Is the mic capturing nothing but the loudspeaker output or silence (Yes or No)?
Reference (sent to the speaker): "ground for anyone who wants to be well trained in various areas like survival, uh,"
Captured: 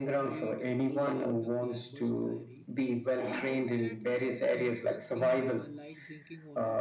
No